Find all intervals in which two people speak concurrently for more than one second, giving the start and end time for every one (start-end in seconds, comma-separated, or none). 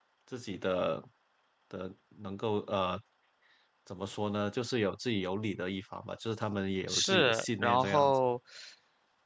6.9-8.2